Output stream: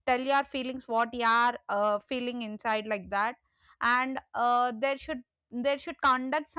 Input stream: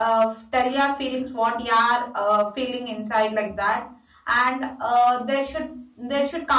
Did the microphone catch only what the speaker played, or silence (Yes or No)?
Yes